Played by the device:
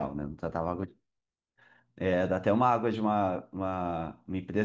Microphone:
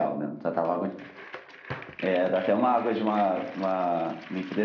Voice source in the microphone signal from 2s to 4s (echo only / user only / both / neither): echo only